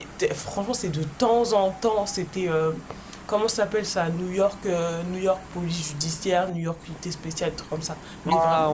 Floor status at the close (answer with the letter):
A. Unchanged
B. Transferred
B